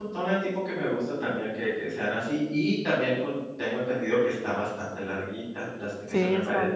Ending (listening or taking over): taking over